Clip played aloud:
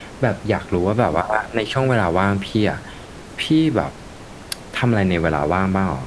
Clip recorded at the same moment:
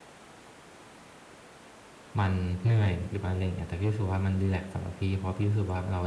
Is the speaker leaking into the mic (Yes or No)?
No